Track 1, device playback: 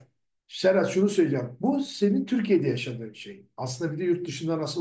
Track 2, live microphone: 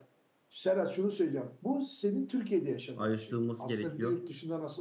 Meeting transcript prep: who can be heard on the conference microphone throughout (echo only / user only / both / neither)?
both